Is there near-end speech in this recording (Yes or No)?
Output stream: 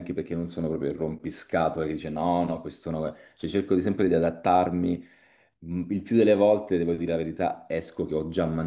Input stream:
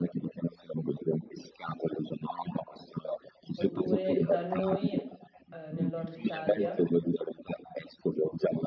Yes